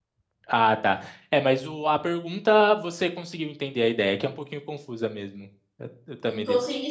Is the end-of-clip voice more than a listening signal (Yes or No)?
Yes